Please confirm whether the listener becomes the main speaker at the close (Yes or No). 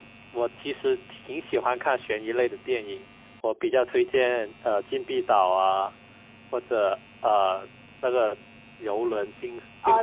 Yes